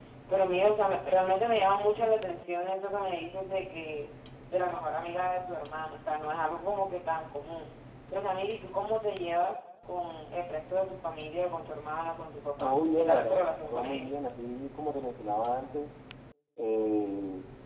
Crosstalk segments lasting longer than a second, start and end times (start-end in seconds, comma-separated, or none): 12.6-14.1